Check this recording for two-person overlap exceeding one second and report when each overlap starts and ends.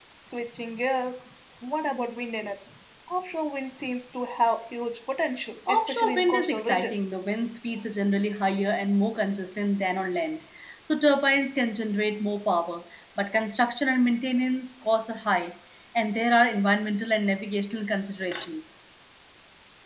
5.7-7.1

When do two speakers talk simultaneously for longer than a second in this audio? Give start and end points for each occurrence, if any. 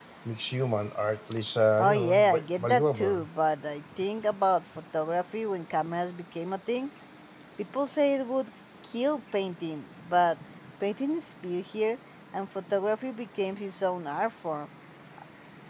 1.8-3.2

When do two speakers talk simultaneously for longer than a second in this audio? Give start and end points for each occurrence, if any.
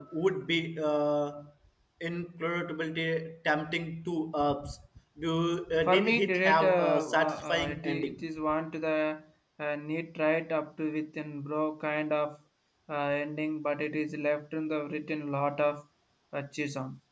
5.9-8.2

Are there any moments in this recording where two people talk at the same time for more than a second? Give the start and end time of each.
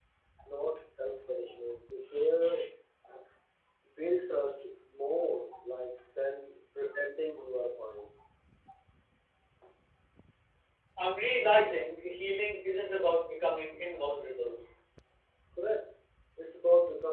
none

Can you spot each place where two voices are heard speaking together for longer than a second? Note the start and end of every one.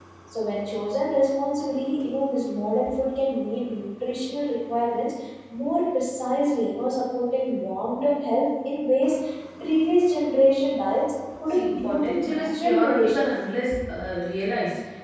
11.5-13.2

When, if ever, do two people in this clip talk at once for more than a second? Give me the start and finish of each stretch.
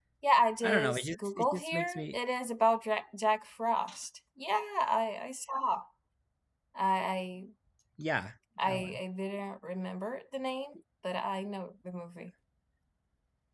0.6-2.2

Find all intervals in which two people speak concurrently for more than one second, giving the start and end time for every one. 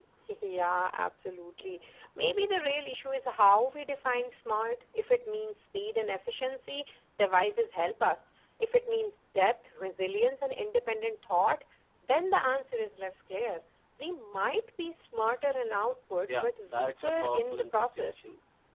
16.4-18.2

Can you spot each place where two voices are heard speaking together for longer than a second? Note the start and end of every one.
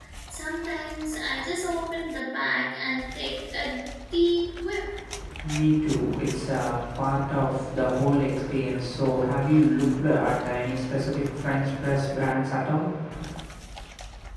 none

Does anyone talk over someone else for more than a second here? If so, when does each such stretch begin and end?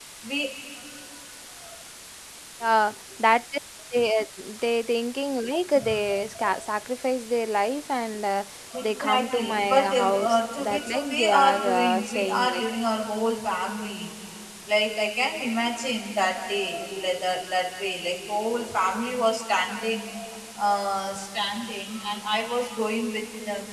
8.8-12.6

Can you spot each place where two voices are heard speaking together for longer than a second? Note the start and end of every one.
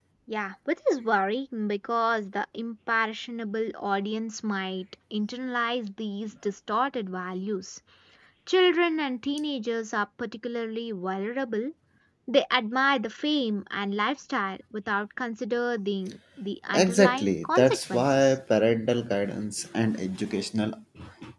16.8-18.3

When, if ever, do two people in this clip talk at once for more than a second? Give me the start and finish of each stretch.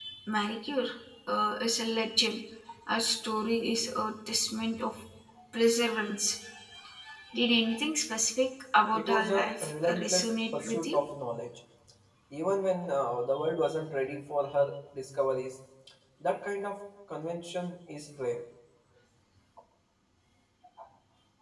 8.9-11.0

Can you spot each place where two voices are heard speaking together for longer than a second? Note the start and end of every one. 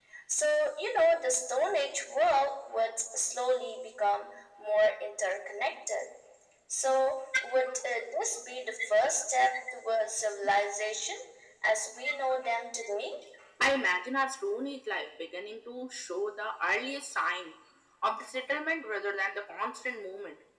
none

